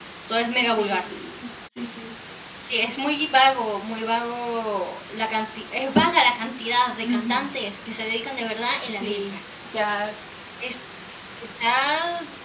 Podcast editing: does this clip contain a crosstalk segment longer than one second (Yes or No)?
No